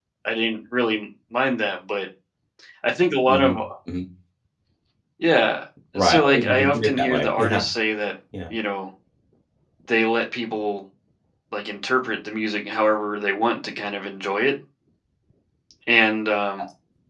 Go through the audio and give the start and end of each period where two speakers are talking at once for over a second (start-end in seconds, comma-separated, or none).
6.0-7.7